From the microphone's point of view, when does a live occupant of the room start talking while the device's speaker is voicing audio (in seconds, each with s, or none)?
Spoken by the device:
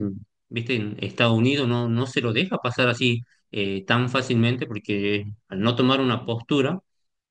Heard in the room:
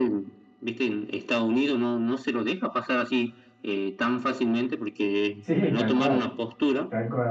5.4 s